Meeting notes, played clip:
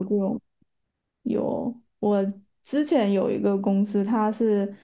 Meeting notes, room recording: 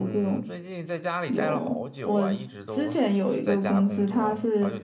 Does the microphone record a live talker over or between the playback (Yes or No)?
Yes